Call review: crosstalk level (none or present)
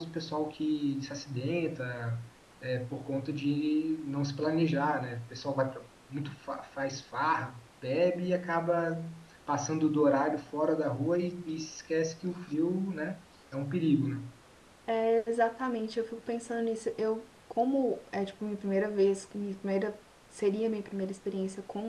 none